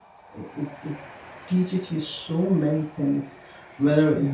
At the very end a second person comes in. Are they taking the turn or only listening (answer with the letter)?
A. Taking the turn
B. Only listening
B